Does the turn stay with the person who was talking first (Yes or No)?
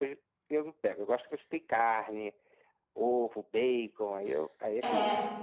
No